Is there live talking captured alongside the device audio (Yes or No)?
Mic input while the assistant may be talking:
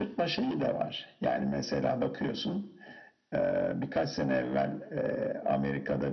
No